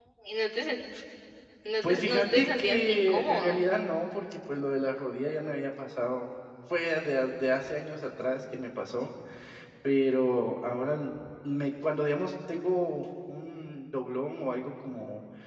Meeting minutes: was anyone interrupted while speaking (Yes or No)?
Yes